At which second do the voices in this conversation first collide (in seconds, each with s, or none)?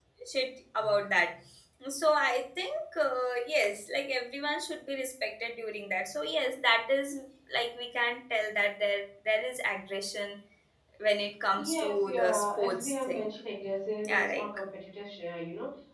11.6 s